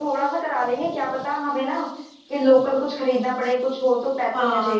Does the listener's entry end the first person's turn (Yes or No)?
Yes